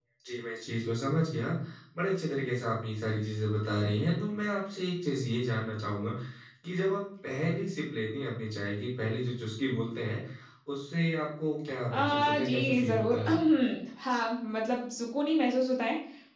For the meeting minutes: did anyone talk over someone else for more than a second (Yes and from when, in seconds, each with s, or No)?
Yes, from 11.9 s